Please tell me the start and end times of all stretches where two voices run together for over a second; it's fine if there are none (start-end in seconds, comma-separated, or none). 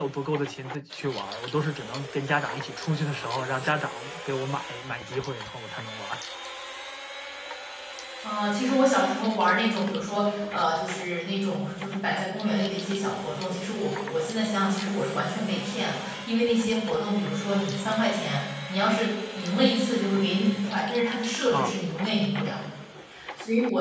none